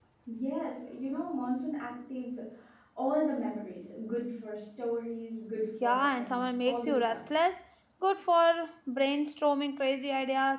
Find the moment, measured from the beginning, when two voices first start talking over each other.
5.8 s

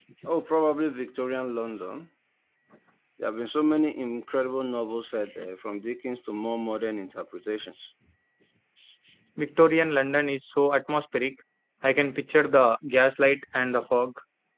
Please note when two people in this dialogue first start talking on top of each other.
none

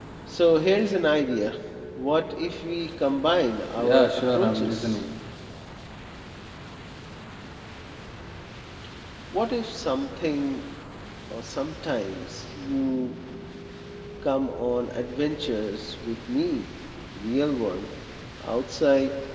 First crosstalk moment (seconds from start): 3.8 s

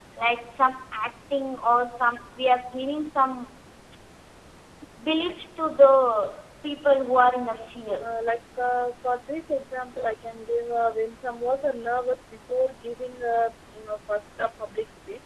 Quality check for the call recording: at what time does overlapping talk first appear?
none

